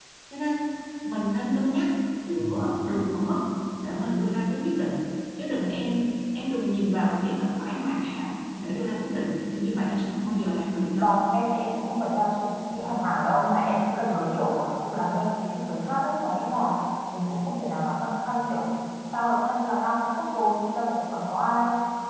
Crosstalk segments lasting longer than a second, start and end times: none

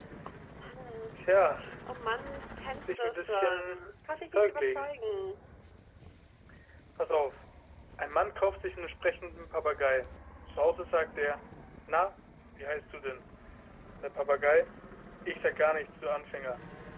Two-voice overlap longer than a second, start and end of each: 2.8-4.9

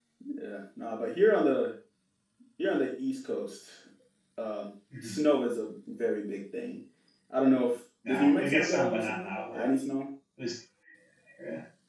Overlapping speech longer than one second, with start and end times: 8.1-9.7

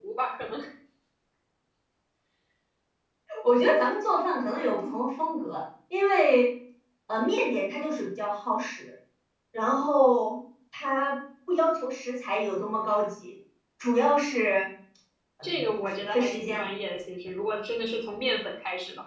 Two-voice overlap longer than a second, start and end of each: 15.4-16.7

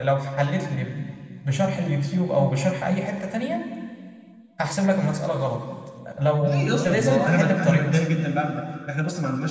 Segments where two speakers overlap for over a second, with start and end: 6.4-8.0

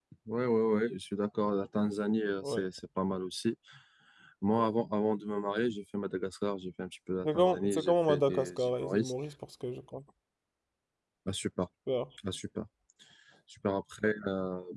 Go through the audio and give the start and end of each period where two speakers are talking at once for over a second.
7.2-9.1

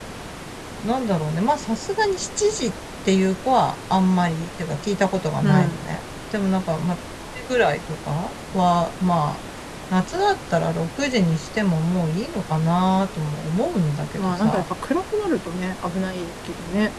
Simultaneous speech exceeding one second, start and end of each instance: none

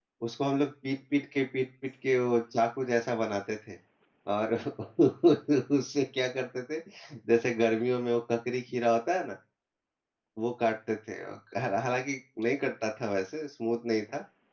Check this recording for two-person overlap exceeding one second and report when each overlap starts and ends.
none

